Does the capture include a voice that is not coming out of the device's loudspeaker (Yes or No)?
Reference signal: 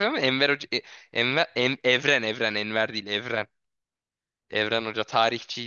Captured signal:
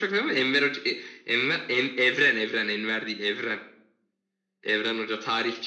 No